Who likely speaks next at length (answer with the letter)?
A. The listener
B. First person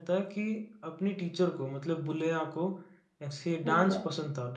B